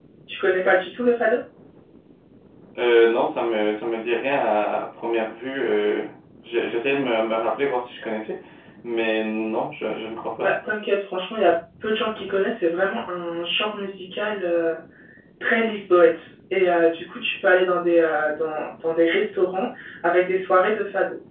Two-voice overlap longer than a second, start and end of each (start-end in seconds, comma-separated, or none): none